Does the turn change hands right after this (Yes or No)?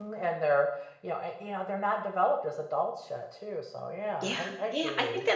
Yes